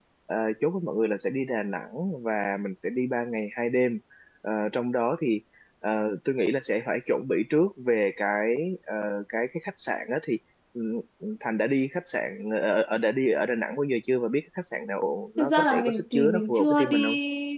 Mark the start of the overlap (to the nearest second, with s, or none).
15 s